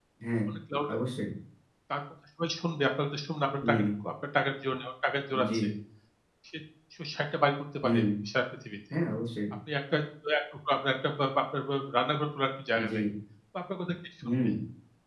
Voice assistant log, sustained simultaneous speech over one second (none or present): none